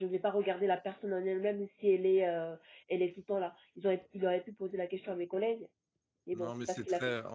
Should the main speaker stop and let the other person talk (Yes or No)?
Yes